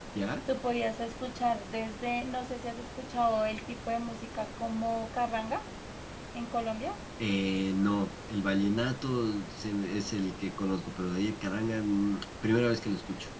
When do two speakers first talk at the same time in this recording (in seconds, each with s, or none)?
none